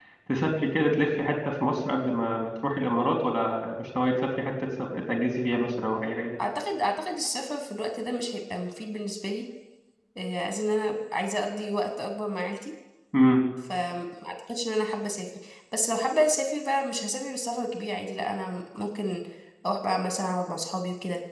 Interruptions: none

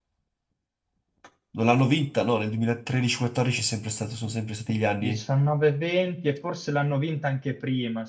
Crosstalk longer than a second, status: none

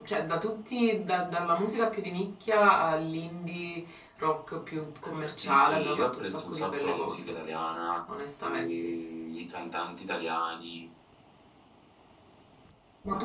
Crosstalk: present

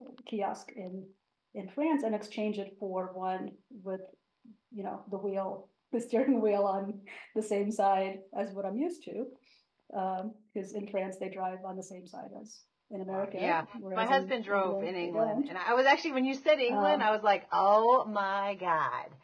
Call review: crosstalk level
present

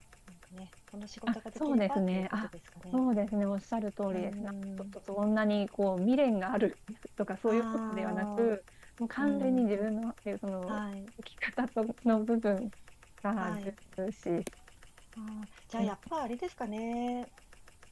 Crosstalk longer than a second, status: present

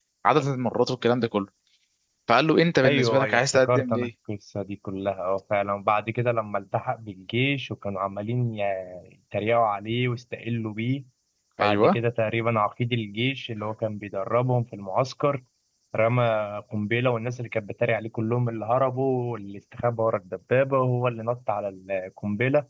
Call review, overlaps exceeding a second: present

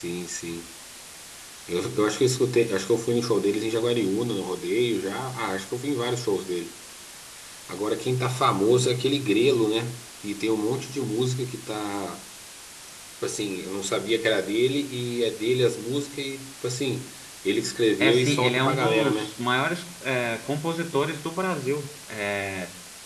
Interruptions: present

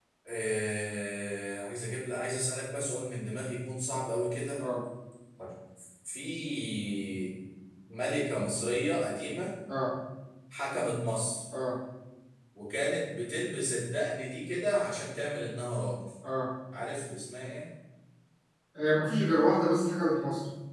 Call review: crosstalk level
none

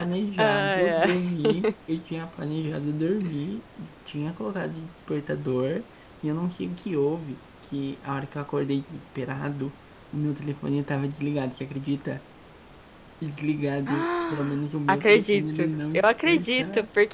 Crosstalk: present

